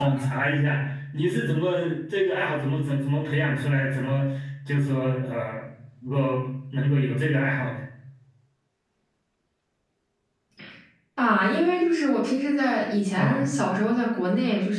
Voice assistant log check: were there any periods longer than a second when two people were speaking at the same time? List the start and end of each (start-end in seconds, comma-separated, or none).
none